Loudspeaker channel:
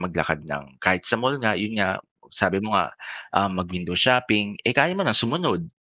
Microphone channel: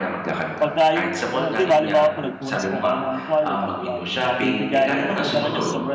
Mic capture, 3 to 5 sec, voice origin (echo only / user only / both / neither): both